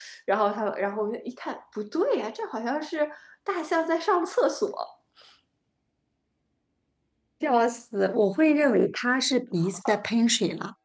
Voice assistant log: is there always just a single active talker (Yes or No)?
Yes